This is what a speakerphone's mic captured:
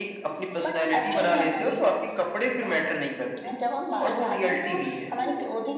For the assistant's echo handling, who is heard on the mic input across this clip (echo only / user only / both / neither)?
both